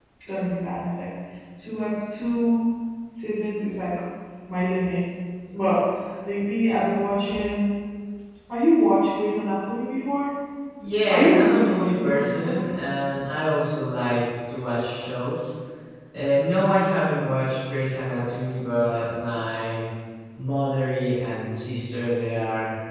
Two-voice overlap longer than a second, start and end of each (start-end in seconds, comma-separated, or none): 11.1-12.6